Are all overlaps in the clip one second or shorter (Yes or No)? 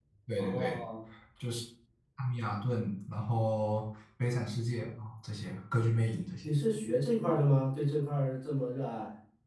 Yes